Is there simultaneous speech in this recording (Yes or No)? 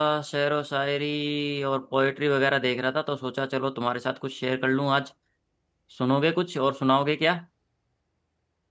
No